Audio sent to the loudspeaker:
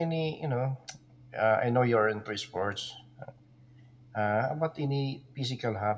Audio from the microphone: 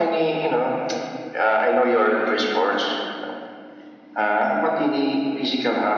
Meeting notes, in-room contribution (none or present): none